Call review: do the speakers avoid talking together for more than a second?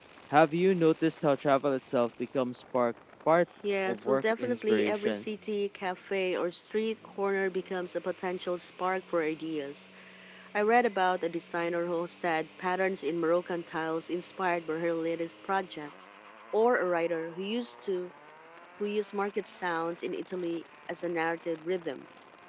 No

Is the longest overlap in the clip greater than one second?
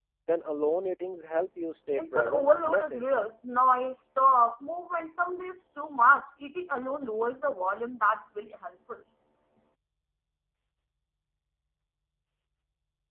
Yes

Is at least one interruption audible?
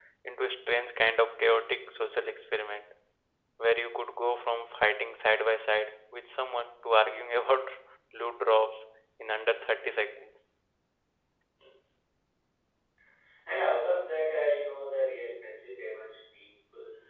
No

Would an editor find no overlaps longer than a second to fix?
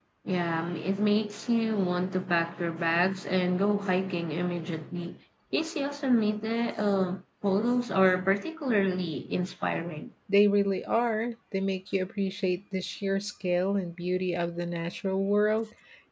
Yes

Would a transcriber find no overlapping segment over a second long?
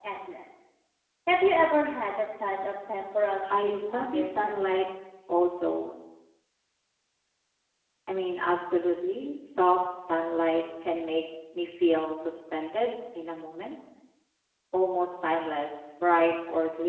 No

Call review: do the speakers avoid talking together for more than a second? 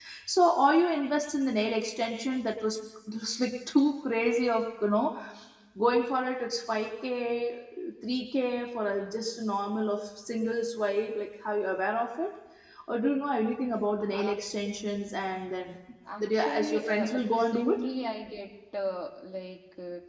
No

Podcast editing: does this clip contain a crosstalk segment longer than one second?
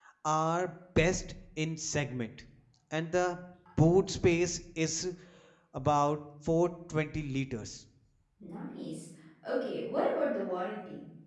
No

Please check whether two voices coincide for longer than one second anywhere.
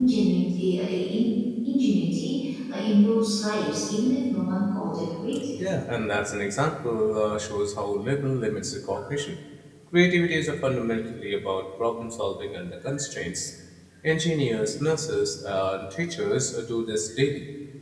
No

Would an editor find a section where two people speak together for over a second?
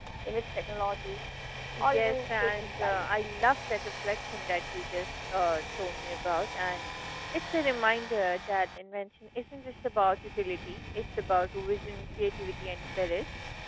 Yes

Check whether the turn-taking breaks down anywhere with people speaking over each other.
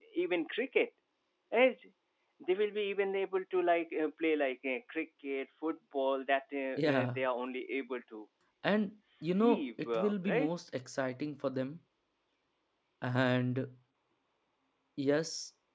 Yes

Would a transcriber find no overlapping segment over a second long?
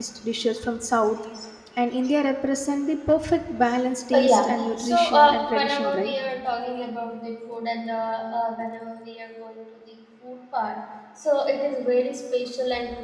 No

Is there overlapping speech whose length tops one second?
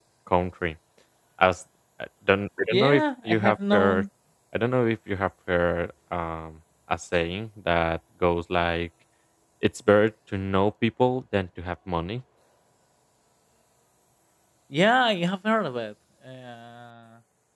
Yes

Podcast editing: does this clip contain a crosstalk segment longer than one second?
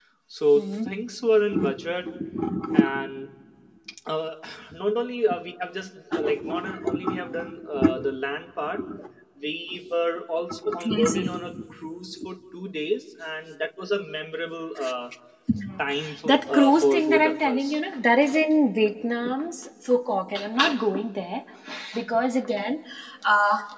Yes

